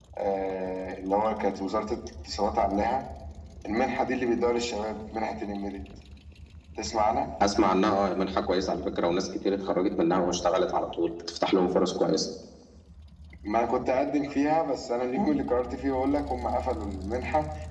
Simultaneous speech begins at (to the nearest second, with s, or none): none